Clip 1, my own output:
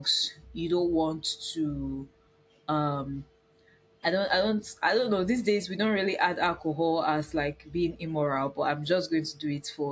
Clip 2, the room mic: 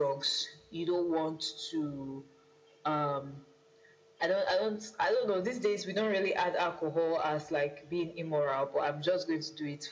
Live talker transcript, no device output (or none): none